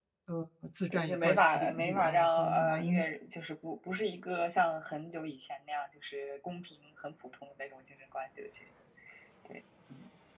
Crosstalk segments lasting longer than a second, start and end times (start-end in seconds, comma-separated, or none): 0.9-3.0